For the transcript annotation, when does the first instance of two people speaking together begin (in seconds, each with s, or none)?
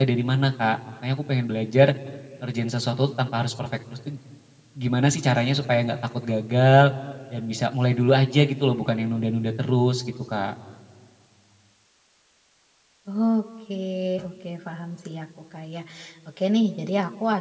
none